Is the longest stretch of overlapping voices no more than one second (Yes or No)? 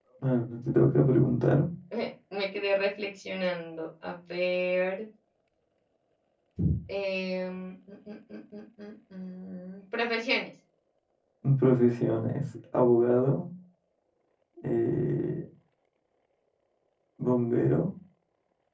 Yes